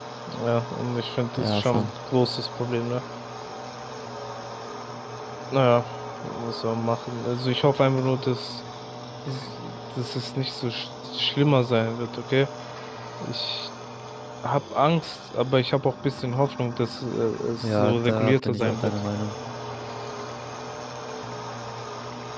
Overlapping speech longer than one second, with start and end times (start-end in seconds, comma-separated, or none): 17.6-18.9